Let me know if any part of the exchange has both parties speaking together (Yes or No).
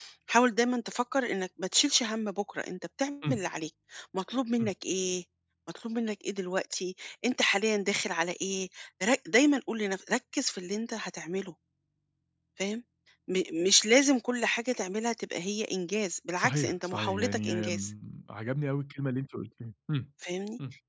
Yes